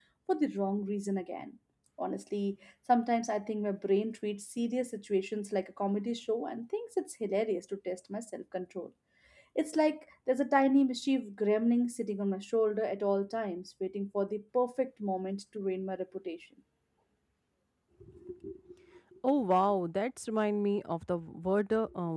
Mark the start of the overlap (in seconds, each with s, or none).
none